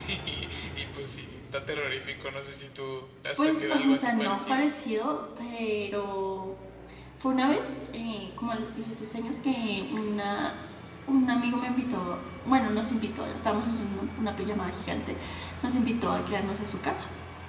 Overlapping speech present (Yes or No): Yes